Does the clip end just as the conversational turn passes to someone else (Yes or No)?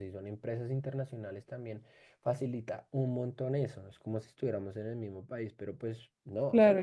Yes